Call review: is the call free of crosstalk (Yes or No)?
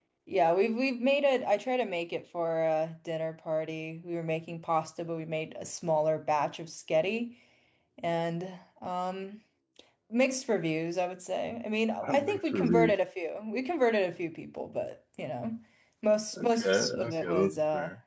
No